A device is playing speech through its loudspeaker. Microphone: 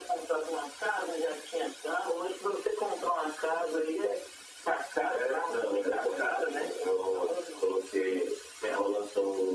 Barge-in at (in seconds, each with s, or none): none